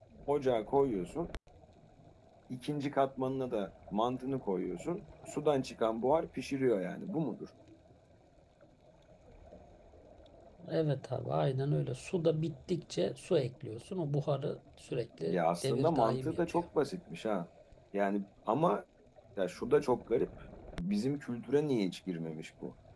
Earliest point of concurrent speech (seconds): 15 s

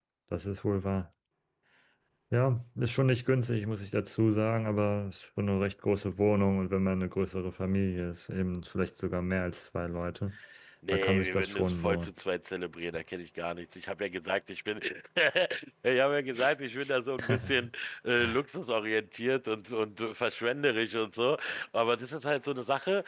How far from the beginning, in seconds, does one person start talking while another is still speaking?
11 s

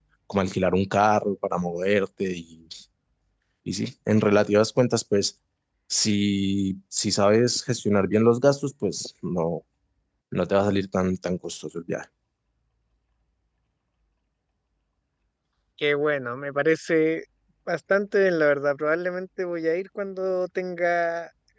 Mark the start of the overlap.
none

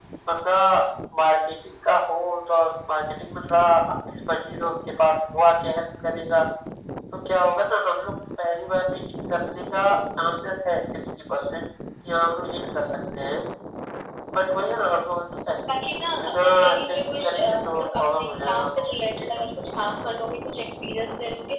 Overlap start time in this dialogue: 16 s

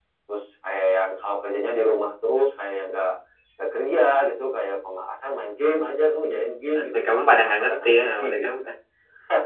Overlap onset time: 6 s

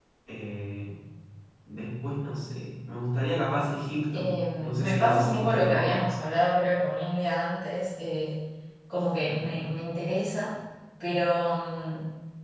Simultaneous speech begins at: 4 s

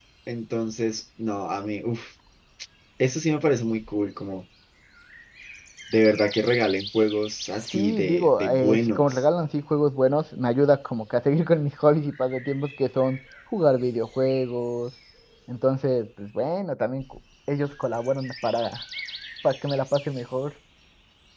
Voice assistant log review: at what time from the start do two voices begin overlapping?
8 s

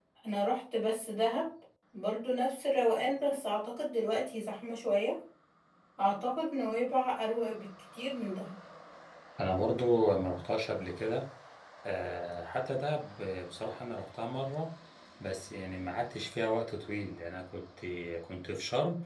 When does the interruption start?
none

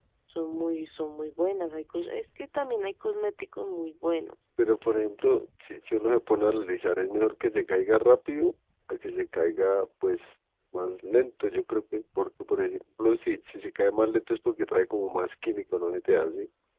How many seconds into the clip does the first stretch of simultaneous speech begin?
none

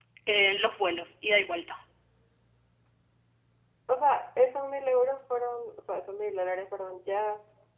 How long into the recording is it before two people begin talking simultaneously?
none

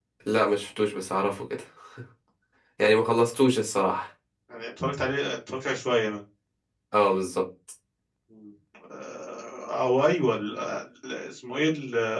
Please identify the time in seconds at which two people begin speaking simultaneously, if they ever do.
none

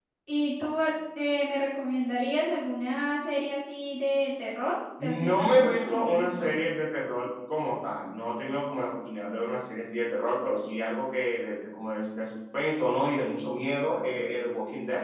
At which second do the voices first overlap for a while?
5 s

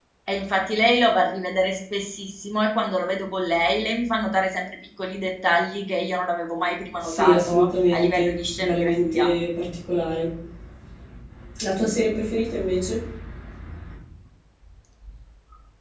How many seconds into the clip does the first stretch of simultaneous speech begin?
7 s

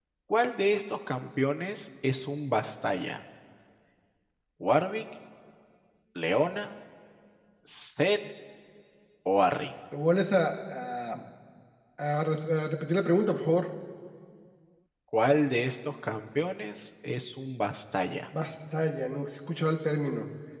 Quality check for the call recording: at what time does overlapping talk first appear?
none

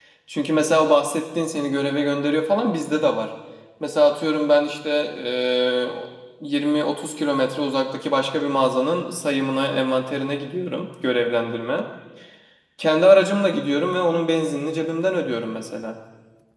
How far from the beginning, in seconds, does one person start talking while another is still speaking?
none

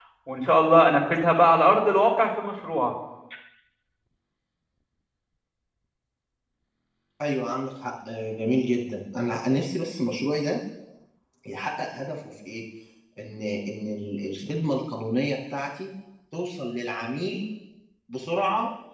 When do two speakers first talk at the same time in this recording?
none

